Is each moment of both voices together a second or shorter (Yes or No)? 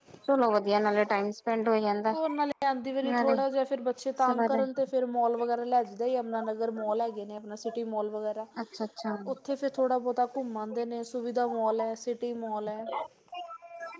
Yes